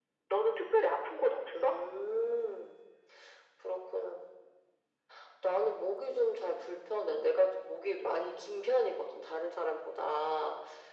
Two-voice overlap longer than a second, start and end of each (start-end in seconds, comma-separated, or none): none